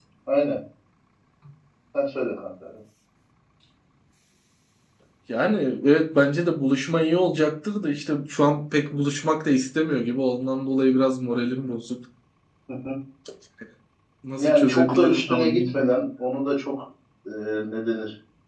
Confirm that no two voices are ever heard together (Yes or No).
No